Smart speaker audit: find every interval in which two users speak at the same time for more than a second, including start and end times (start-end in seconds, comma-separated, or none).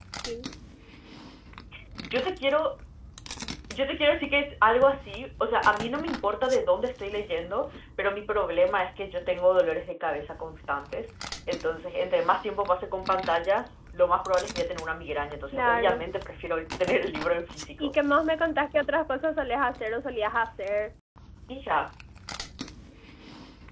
none